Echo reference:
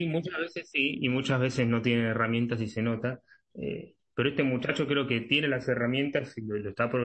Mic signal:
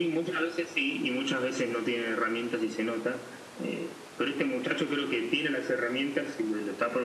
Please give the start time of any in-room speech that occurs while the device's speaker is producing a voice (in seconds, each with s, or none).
none